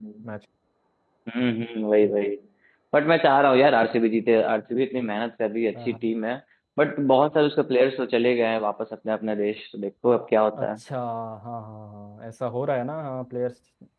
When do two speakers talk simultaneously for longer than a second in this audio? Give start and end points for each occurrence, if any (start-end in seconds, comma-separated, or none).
none